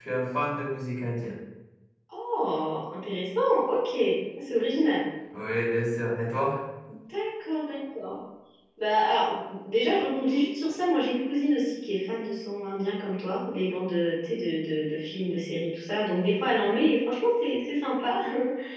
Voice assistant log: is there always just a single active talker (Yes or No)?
Yes